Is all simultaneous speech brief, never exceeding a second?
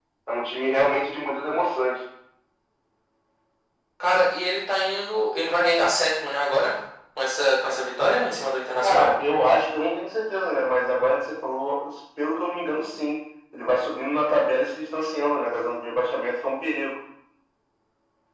Yes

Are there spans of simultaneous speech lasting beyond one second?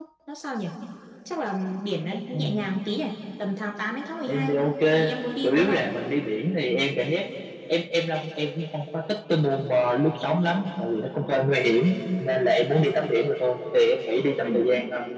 No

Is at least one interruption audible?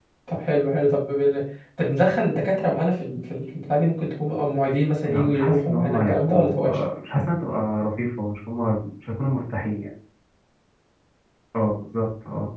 Yes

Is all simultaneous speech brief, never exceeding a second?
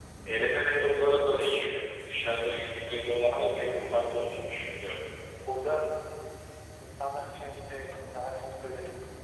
No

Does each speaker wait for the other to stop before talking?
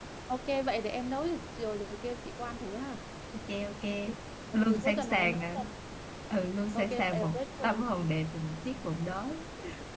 No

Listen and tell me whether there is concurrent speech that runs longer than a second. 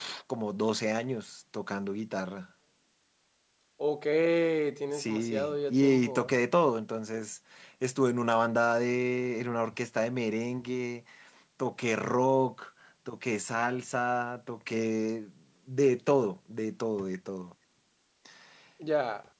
Yes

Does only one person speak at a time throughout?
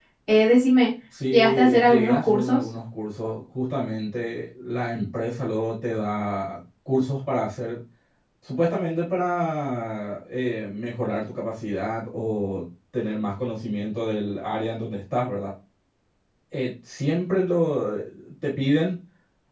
No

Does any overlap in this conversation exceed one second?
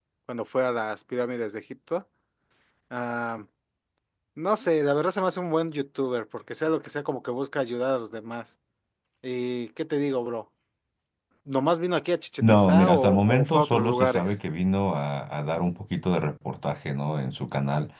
Yes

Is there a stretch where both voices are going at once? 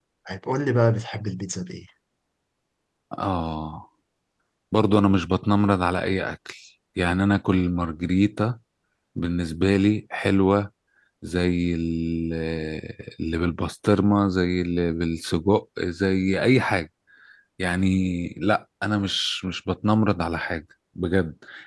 No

